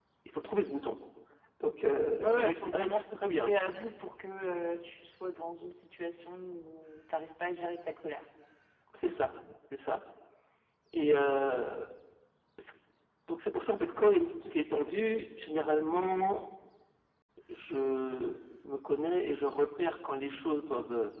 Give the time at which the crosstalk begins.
2.2 s

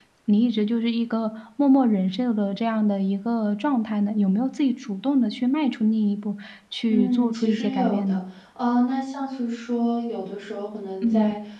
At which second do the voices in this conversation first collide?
6.9 s

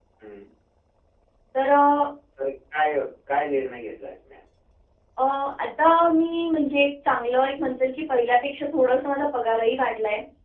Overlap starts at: none

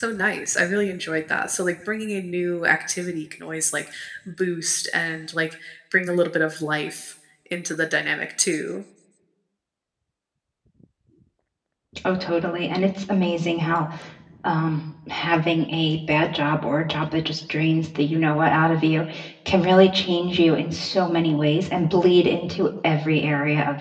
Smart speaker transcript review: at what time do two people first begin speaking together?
none

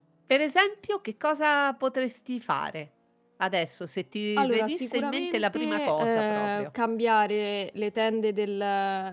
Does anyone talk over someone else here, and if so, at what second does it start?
4.4 s

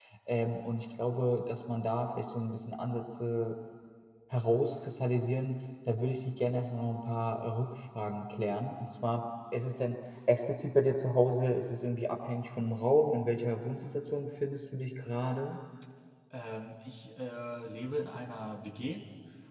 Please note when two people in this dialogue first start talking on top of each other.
none

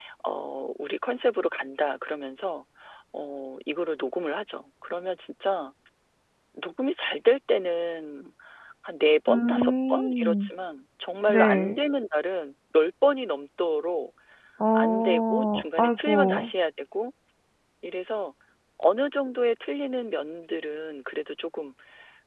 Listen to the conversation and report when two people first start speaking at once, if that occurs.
9.3 s

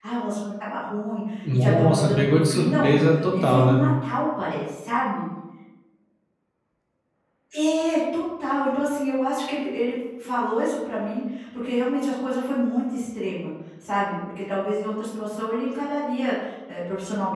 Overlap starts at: 1.4 s

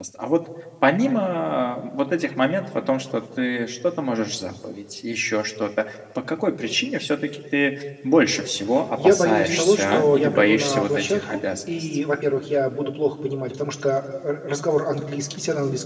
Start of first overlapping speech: 9.0 s

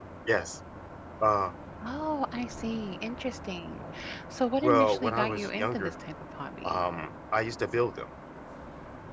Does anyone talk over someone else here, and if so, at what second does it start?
4.6 s

